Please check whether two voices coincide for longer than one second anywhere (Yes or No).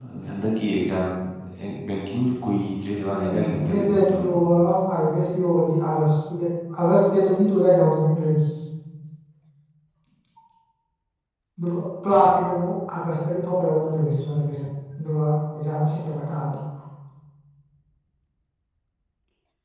Yes